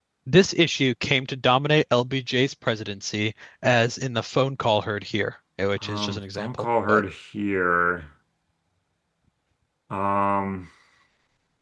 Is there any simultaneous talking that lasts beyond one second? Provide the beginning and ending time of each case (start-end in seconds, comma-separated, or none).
5.8-7.0